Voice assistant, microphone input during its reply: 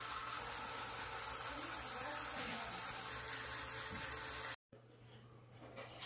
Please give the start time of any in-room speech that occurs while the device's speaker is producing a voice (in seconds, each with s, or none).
none